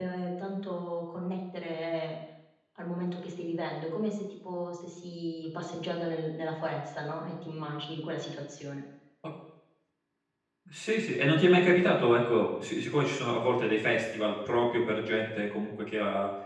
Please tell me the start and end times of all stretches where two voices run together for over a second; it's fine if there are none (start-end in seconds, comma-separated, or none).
none